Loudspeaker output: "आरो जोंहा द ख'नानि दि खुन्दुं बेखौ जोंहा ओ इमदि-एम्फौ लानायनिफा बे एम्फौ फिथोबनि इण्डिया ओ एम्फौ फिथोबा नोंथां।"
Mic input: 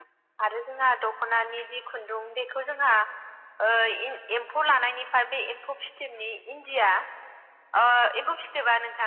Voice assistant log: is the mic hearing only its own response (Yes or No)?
Yes